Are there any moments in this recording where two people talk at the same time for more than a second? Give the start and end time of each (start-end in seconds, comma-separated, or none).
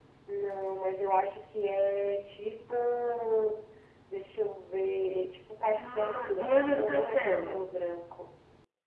5.8-7.6